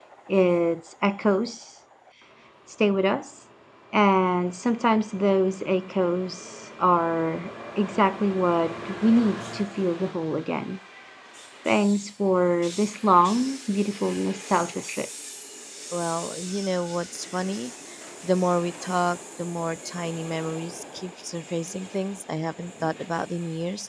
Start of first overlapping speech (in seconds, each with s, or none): none